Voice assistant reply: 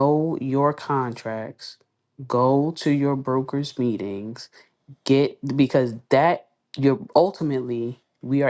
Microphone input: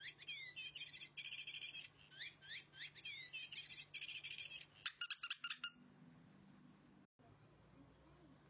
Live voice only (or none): none